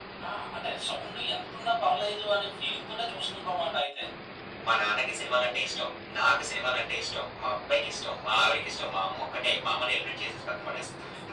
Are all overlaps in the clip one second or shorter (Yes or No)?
Yes